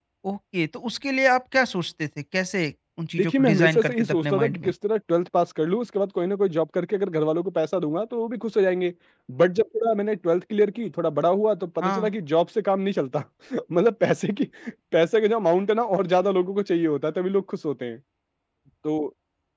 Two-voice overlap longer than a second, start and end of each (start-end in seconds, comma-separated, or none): 3.2-4.7